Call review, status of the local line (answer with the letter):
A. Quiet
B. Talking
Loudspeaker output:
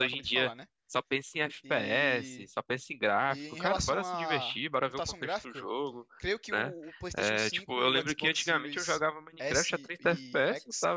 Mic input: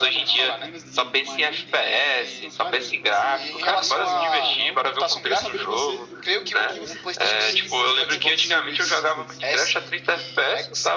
B